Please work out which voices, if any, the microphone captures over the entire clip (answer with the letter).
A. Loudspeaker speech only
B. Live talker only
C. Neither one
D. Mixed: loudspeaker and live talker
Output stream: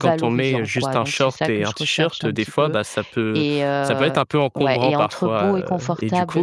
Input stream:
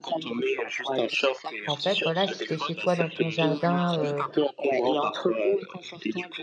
D